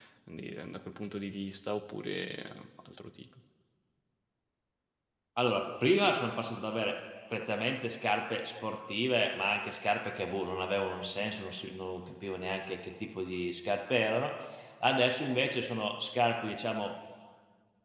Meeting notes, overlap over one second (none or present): none